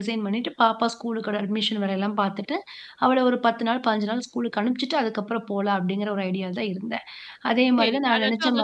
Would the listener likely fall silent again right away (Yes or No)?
No